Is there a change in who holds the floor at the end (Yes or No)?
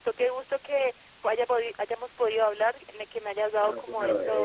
Yes